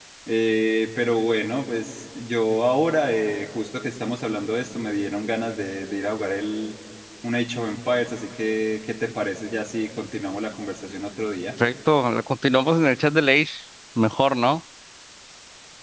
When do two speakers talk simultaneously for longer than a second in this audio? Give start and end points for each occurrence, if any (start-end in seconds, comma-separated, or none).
none